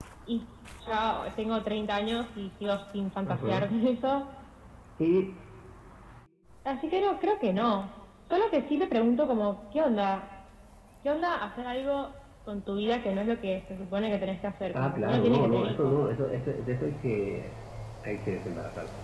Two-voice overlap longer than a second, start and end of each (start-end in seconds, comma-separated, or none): 14.7-16.0